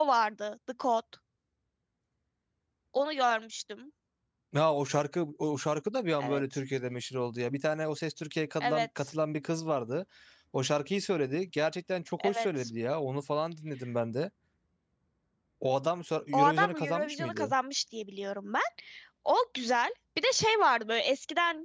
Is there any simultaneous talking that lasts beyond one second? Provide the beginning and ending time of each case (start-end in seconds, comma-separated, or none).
16.3-17.5